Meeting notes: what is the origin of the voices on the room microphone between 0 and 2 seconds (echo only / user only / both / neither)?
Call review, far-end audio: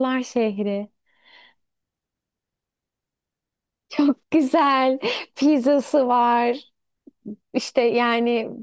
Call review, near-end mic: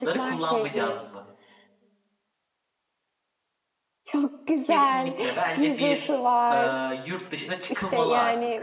both